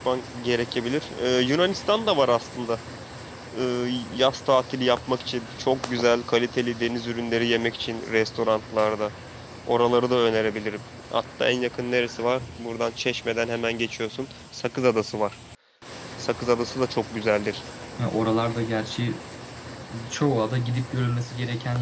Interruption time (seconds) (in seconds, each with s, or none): none